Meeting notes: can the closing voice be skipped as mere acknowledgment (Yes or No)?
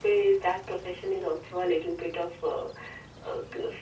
No